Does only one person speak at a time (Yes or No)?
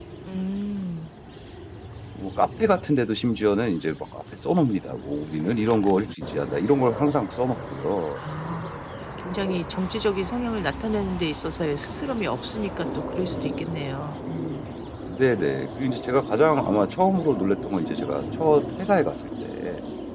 Yes